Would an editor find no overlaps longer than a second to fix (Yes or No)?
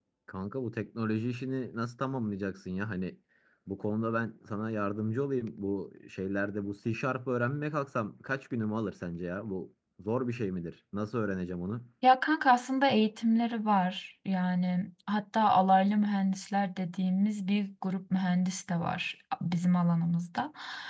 Yes